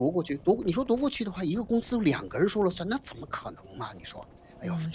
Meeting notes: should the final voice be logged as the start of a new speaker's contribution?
Yes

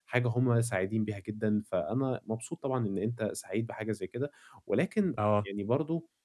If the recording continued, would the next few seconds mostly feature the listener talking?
No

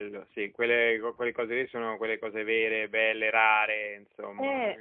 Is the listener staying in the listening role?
No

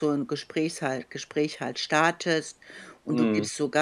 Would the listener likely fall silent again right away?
Yes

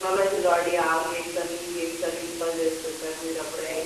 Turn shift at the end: Yes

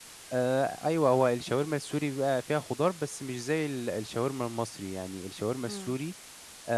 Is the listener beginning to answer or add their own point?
No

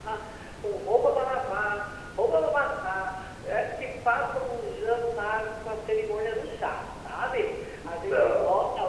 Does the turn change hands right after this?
No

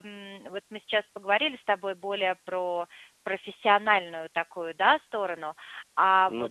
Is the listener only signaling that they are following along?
Yes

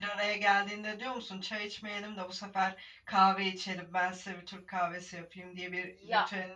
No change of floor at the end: No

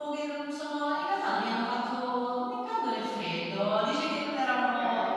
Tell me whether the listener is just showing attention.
Yes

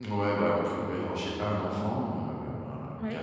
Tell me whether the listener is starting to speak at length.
No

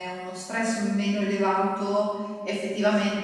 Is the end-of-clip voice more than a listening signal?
No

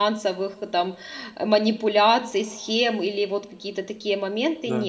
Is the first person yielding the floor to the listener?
No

